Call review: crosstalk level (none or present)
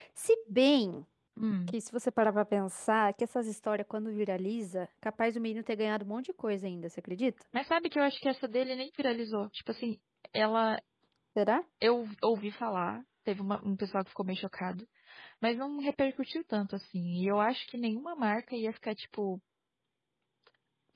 none